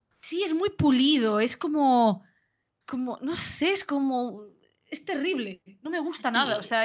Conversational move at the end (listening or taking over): listening